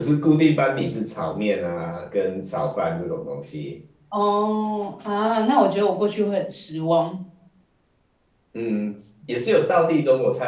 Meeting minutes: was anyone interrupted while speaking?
No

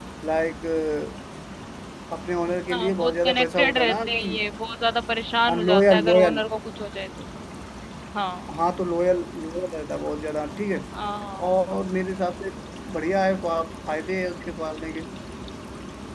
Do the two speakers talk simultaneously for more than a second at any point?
Yes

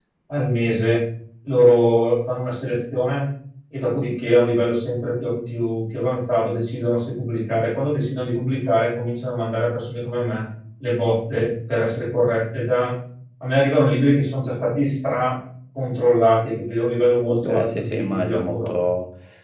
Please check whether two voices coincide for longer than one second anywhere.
Yes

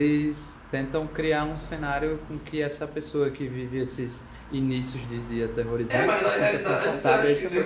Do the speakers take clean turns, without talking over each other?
No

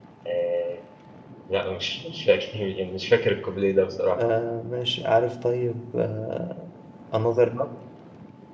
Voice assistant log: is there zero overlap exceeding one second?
Yes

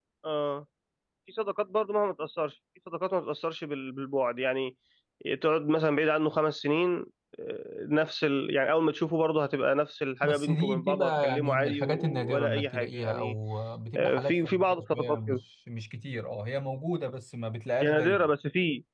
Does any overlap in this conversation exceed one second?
Yes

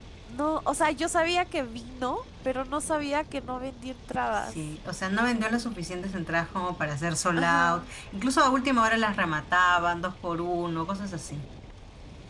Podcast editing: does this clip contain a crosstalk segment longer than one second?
No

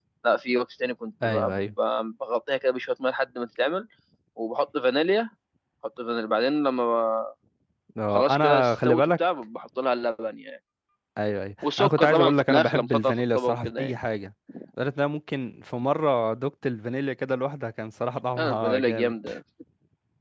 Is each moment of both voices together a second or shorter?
No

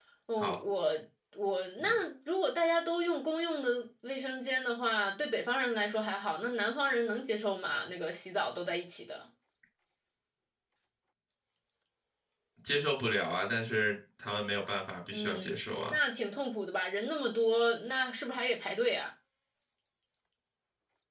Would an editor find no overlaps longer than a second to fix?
Yes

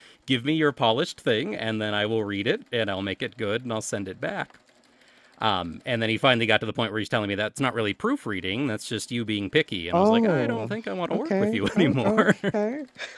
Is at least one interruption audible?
Yes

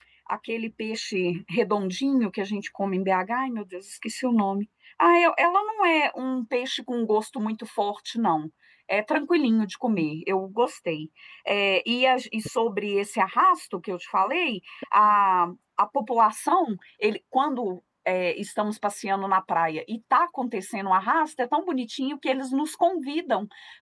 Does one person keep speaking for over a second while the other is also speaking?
No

